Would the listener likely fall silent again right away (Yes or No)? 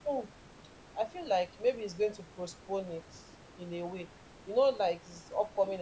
Yes